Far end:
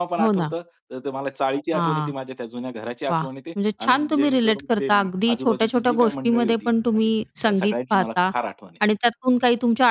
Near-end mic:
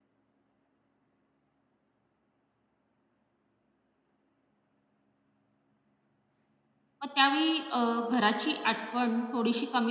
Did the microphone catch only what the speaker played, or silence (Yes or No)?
No